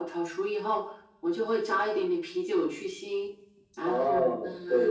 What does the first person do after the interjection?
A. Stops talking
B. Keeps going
A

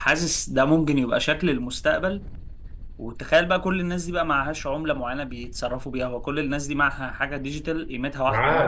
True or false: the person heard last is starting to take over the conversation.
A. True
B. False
A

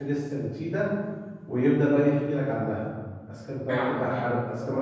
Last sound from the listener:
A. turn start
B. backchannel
B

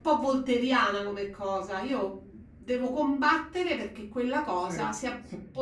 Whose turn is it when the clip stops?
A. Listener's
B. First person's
B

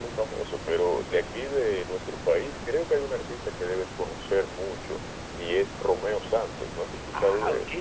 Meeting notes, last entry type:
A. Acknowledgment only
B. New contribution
B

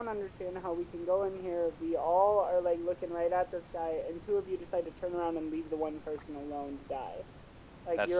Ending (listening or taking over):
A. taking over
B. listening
B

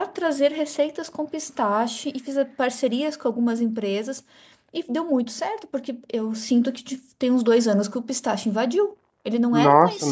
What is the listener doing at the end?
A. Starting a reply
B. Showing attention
A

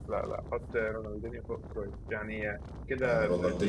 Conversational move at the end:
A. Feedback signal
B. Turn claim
B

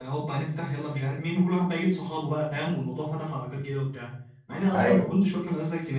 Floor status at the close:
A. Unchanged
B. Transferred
A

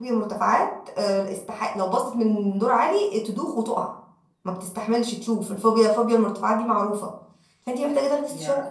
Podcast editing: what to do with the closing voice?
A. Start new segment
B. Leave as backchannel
B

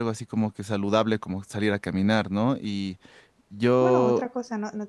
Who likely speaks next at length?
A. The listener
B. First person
A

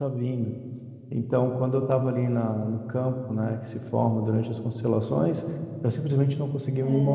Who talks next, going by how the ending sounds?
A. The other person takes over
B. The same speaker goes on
B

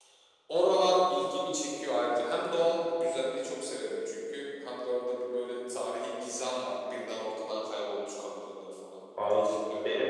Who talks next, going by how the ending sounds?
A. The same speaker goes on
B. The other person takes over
B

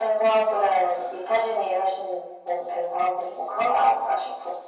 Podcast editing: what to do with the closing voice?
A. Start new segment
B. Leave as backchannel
A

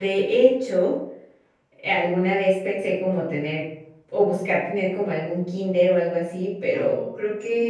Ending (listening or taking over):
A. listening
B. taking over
A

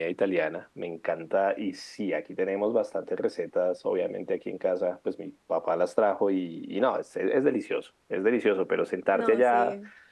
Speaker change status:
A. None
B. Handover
A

